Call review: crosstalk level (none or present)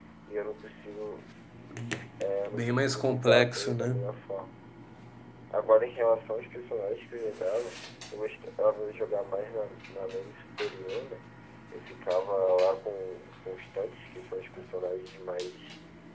present